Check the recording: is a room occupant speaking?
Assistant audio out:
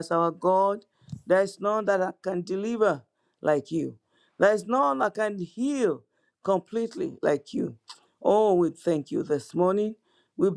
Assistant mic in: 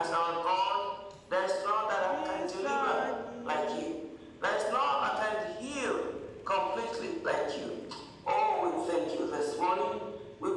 Yes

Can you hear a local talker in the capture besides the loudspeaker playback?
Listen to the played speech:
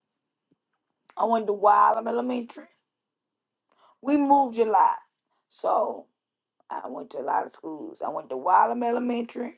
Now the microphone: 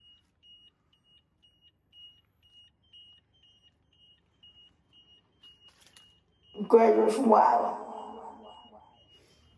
Yes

